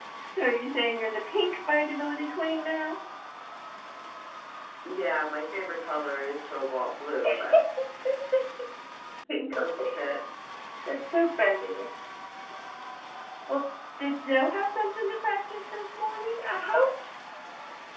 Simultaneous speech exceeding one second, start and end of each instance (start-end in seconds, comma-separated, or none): none